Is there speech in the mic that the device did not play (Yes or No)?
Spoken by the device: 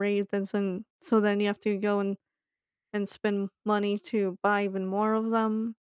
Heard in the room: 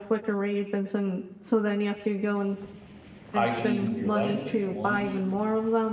Yes